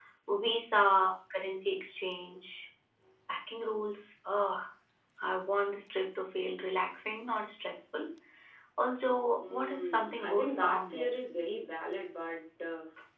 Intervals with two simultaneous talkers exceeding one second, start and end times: 9.5-11.1

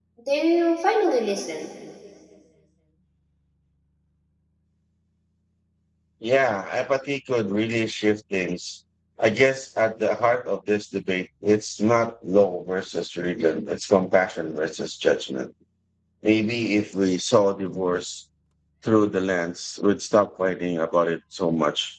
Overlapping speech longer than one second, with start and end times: none

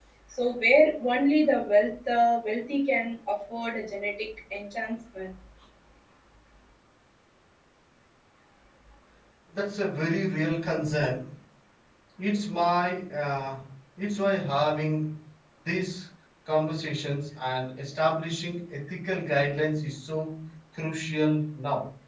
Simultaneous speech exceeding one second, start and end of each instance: none

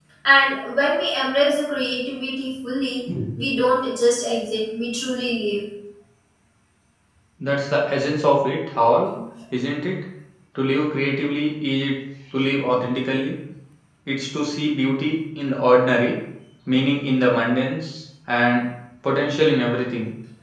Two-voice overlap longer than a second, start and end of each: none

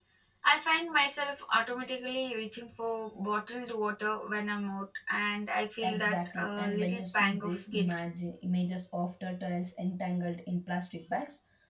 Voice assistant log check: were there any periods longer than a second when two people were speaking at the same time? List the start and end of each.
5.8-8.0

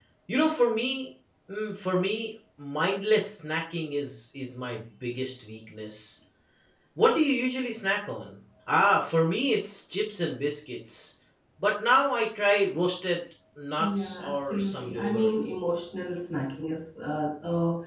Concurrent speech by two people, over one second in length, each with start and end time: 13.8-15.3

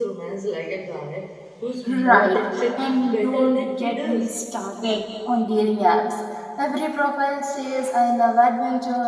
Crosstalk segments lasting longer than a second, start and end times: 1.9-4.3

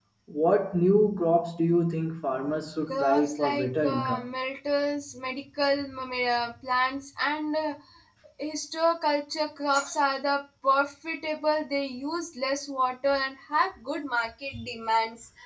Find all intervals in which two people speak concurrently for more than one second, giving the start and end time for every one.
2.9-4.2

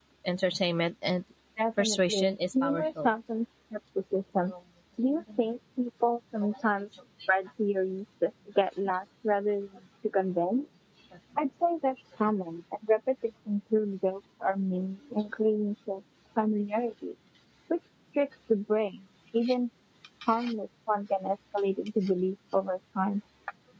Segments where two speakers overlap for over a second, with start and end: 1.8-3.1

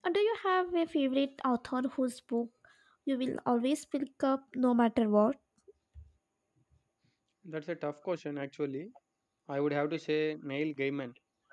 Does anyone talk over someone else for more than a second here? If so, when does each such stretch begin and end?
none

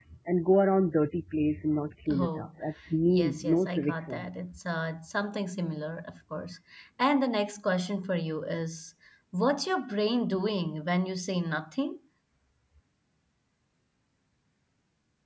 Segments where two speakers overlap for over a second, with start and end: 3.1-4.4

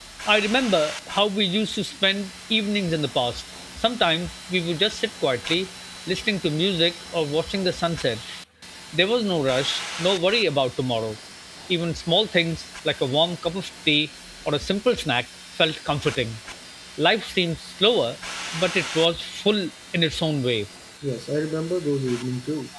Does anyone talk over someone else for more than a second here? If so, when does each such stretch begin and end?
none

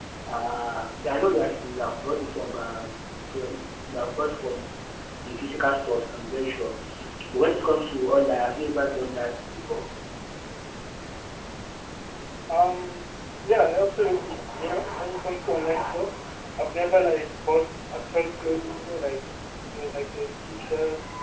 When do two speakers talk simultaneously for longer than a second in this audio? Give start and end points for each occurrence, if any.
none

